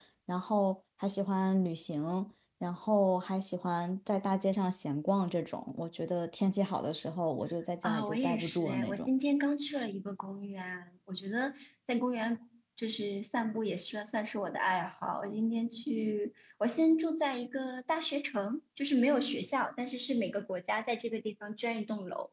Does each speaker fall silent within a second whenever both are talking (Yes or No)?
No